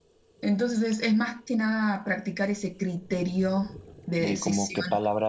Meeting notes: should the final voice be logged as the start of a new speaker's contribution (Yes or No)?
Yes